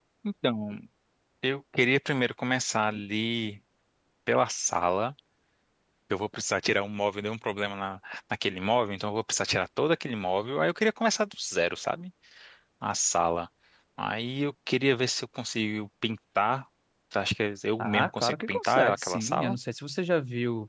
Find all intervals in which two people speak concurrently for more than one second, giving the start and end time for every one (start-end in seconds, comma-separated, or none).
17.8-19.6